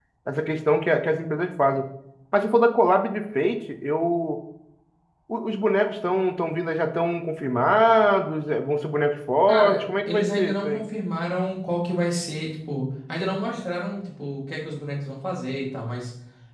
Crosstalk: present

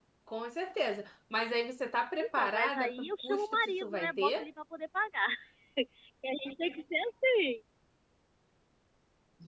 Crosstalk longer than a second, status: present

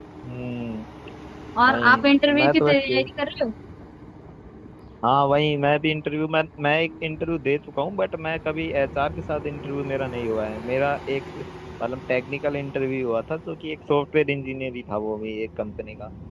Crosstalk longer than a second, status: present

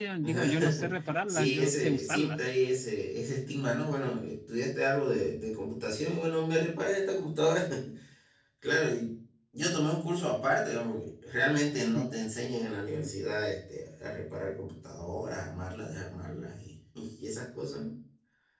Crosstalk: present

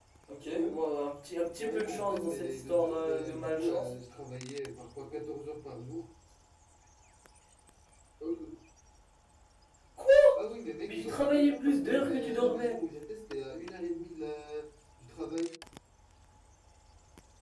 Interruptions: present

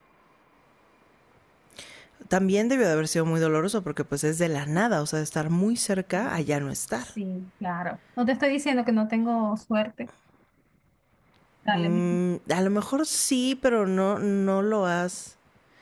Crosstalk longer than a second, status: none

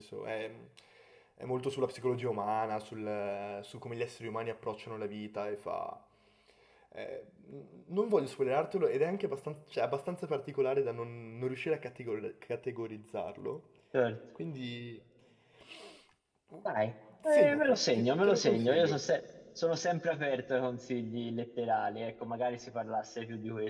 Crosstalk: present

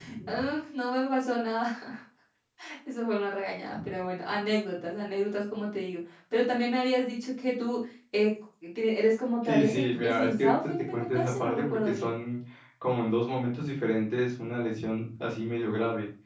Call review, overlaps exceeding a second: present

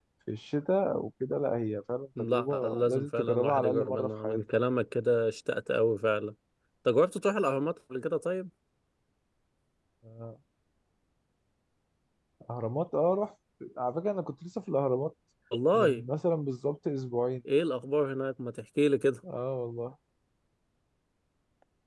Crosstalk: present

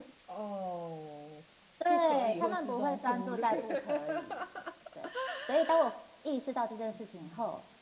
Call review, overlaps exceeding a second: present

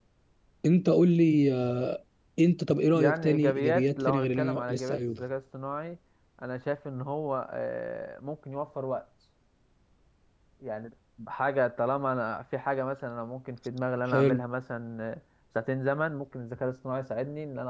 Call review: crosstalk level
present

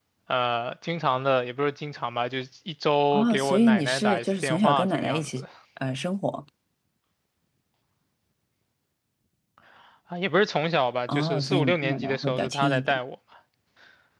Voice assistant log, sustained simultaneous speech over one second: present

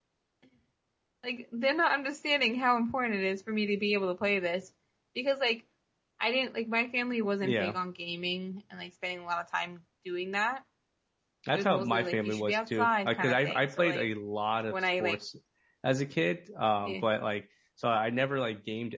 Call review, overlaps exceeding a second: present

